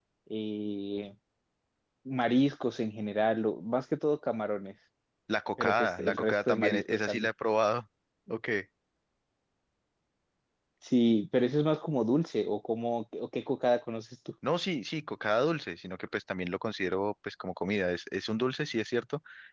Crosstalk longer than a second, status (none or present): present